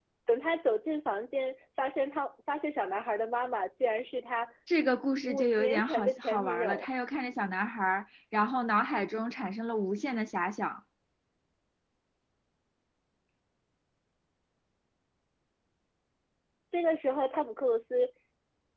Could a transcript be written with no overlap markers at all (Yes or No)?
No